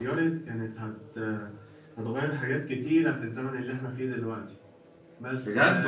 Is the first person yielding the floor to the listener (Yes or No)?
Yes